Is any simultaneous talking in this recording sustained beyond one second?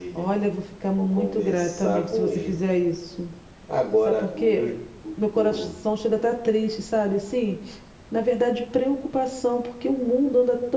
Yes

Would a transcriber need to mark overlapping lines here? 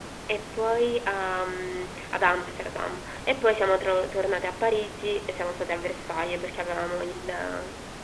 No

